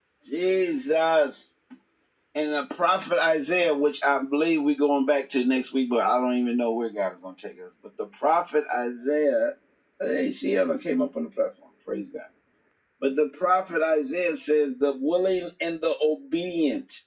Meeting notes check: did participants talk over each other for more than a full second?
No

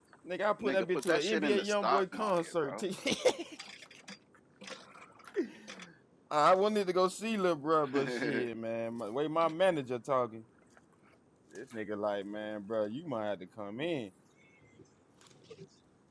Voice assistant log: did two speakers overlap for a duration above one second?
Yes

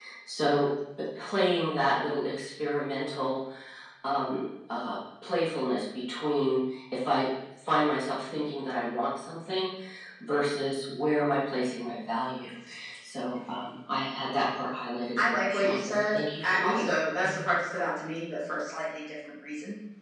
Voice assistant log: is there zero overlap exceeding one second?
No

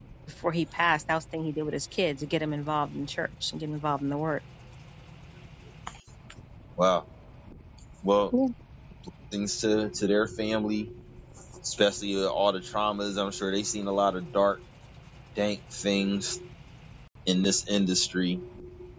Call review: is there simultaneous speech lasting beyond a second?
No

